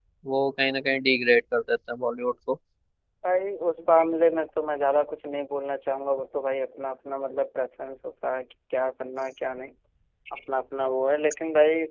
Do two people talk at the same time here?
No

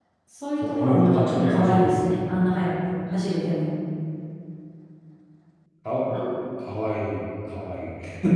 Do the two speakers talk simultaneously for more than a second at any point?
Yes, from 0.6 s

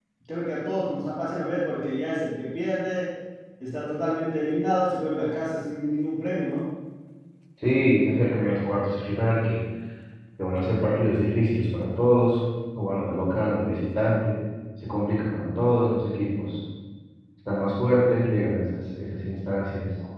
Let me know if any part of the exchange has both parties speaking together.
No

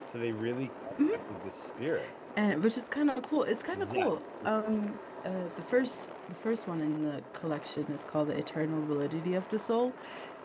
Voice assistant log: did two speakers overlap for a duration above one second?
No

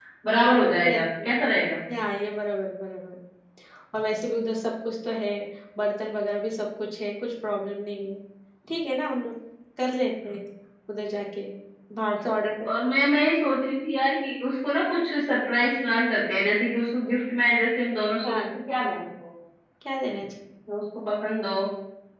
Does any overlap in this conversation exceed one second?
No

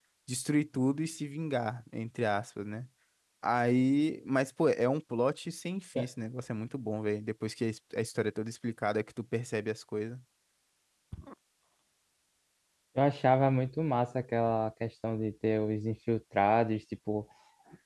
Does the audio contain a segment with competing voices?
No

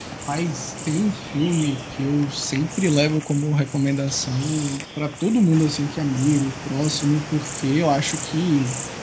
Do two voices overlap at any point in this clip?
No

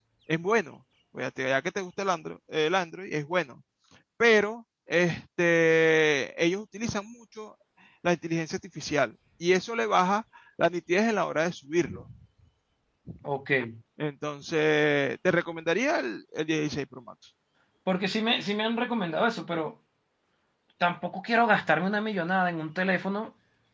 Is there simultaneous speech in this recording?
No

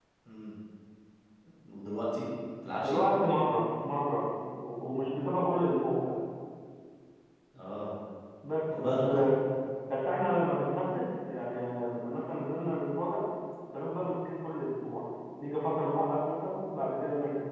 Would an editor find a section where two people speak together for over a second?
No

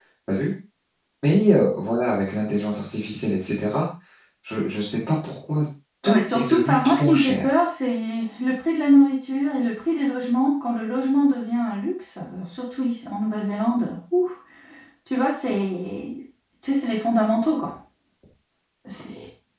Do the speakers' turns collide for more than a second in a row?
Yes, from 6.0 s

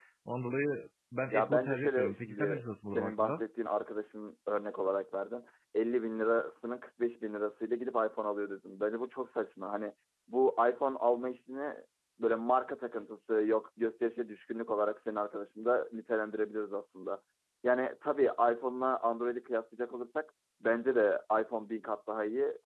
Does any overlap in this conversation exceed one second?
Yes, from 1.3 s

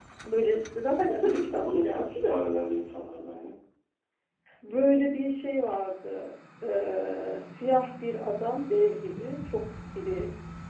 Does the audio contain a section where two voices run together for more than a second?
Yes, from 1.1 s

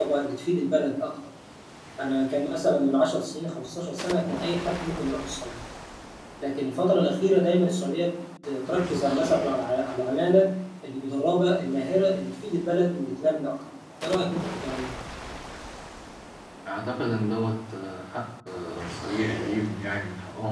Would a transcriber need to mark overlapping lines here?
No

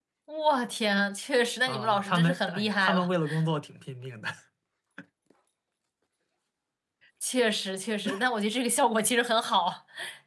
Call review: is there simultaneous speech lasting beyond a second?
Yes, from 1.7 s

